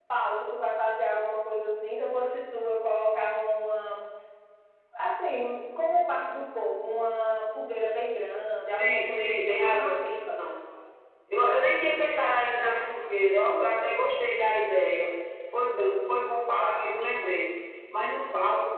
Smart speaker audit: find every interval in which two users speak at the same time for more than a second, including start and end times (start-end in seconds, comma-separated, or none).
8.7-9.9